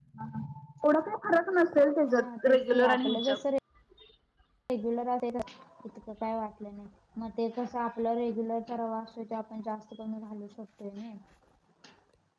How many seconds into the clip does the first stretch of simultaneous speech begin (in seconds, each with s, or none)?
2.0 s